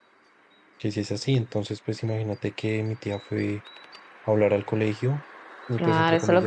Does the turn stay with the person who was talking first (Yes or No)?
No